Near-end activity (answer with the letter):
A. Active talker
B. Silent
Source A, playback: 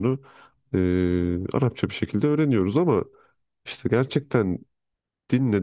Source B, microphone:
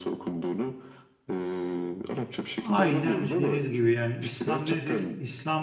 A